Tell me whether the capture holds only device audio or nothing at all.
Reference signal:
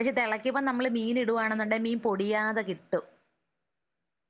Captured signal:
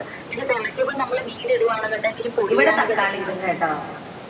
No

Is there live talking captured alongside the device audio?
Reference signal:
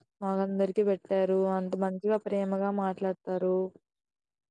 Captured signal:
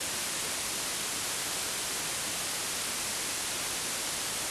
No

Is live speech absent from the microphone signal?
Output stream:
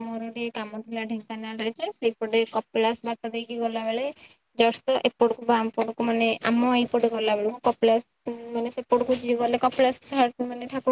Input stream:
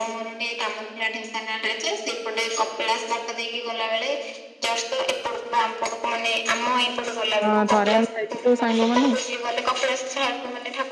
No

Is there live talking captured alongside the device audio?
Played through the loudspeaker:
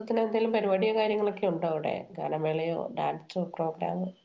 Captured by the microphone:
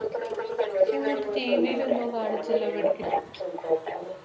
Yes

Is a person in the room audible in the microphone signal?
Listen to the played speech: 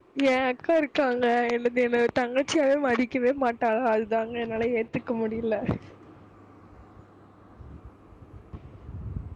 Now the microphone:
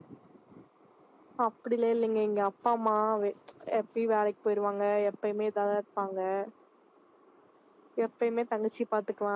Yes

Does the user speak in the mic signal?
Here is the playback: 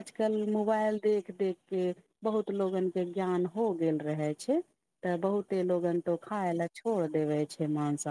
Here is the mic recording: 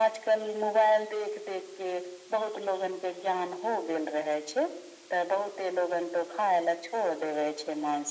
No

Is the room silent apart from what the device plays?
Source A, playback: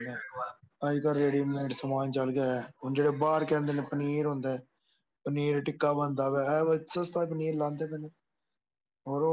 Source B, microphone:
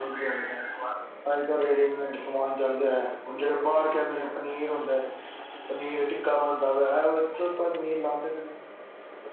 Yes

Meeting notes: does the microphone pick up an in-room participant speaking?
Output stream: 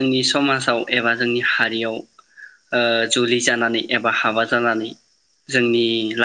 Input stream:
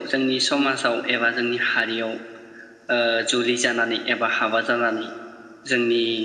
No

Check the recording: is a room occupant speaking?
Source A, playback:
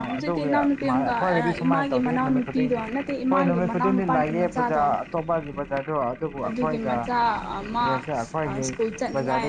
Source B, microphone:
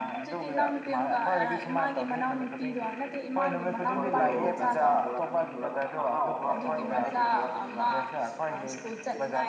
Yes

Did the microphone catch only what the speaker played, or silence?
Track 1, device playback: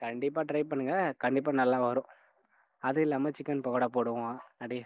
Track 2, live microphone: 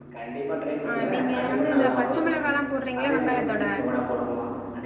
No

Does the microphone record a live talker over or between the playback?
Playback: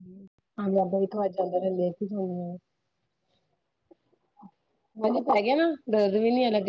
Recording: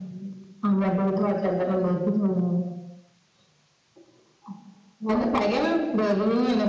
No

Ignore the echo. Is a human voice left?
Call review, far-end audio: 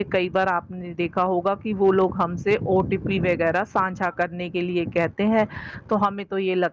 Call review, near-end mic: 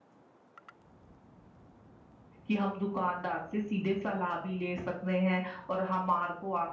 Yes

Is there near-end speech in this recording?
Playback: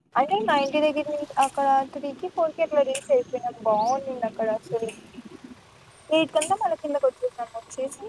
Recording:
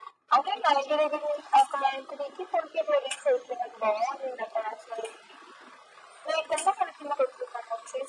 No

